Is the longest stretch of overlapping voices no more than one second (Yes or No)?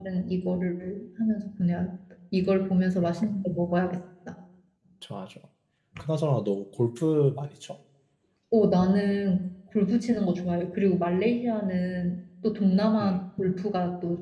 Yes